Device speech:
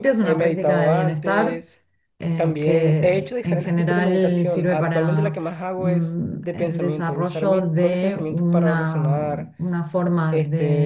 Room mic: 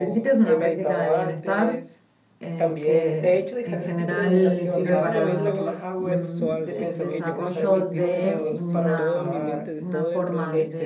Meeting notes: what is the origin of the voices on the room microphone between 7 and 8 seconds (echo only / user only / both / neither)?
both